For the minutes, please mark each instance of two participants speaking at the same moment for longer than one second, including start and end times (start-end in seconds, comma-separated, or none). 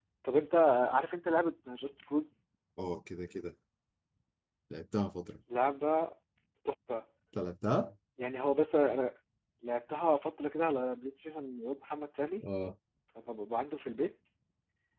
none